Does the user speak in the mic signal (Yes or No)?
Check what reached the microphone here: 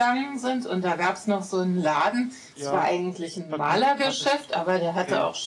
Yes